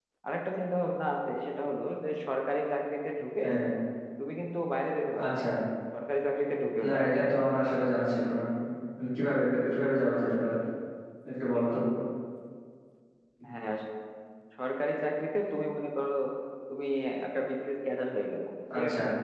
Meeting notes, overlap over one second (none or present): none